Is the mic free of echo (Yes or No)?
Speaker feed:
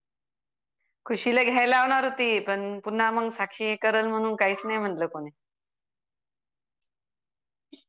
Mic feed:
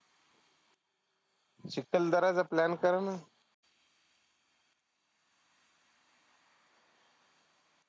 Yes